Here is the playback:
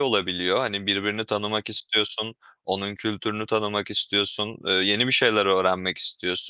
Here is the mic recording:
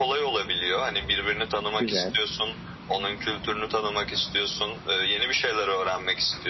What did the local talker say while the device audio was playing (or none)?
Güzel.